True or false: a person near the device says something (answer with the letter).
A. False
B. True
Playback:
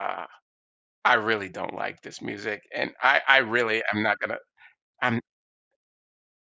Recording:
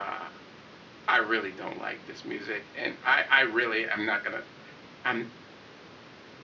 A